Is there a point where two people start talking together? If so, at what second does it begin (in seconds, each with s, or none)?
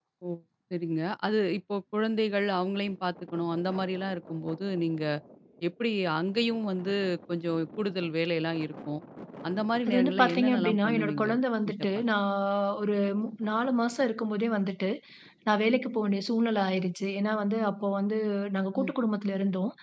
9.9 s